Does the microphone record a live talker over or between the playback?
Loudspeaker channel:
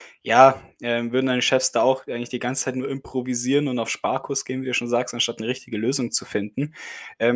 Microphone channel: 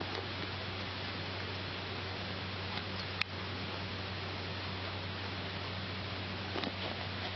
No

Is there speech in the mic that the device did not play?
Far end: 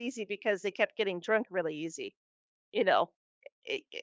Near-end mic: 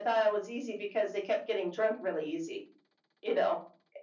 No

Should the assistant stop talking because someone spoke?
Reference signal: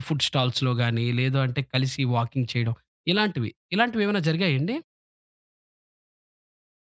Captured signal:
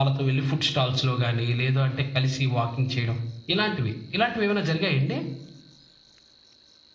No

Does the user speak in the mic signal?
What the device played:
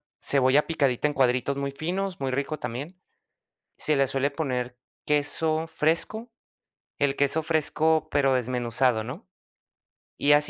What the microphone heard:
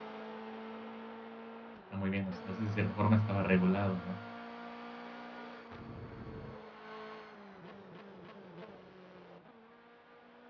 Yes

